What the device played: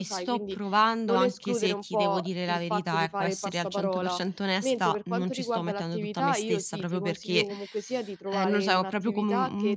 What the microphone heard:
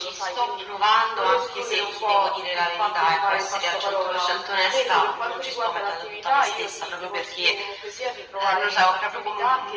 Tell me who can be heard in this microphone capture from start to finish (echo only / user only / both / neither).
echo only